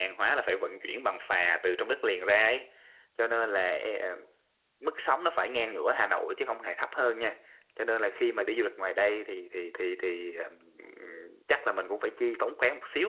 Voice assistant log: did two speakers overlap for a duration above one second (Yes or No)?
No